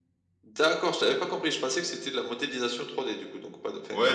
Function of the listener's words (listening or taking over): taking over